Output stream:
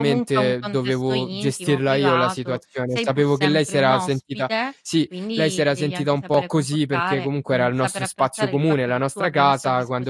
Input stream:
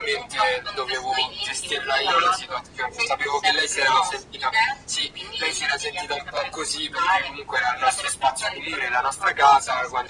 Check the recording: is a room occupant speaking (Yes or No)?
No